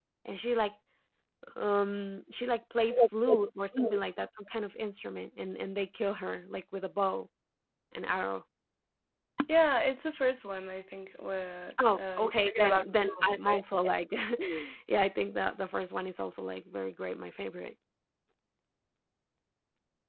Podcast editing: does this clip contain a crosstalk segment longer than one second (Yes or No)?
Yes